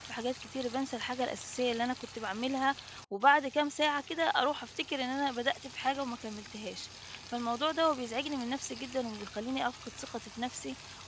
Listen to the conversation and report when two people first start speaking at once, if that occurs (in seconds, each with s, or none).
none